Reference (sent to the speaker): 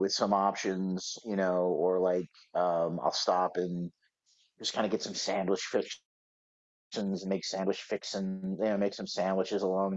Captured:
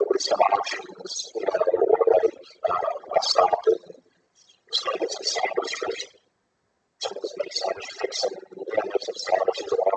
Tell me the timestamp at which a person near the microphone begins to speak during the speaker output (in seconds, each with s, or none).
none